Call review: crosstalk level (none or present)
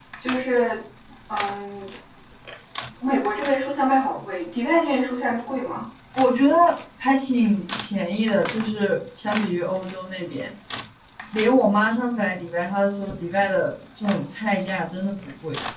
none